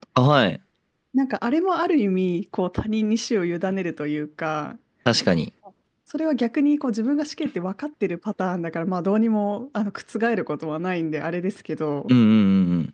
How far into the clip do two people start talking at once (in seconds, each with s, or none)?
none